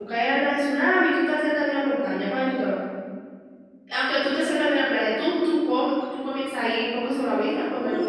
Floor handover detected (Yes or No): Yes